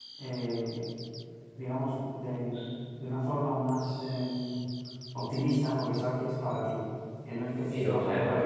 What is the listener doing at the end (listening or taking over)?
listening